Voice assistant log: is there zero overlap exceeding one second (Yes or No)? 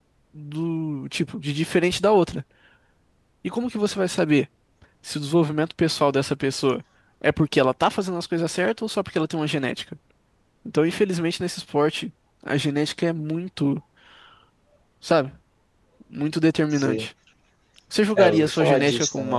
No